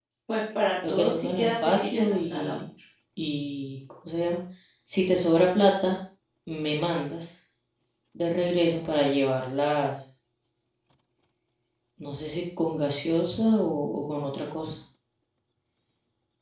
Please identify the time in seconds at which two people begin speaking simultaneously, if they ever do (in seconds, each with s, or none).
0.9 s